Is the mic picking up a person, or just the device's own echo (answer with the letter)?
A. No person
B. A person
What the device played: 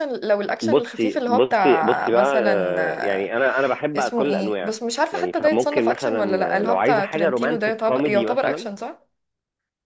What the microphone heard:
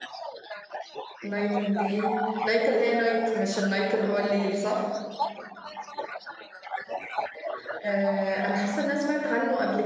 B